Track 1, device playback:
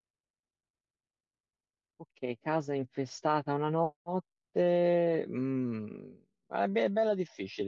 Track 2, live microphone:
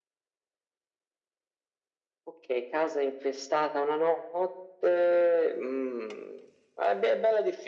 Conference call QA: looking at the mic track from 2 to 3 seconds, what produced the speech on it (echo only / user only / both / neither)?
echo only